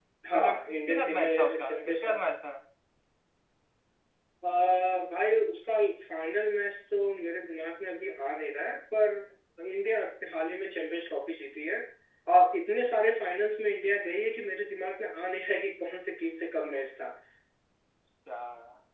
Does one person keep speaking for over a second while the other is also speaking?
Yes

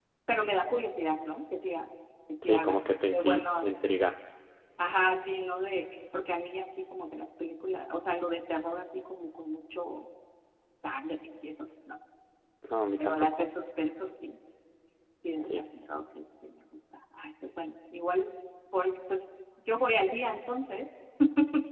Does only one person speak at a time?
No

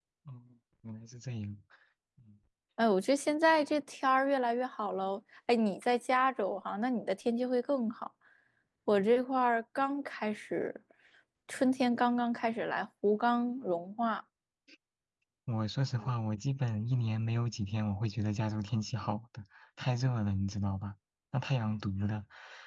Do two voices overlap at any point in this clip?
No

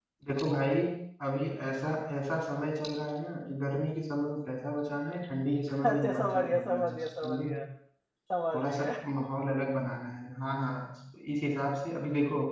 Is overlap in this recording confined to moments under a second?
No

